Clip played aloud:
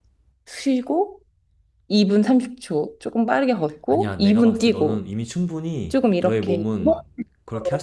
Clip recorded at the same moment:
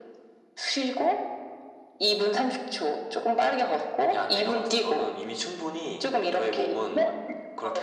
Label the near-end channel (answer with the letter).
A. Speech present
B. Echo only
B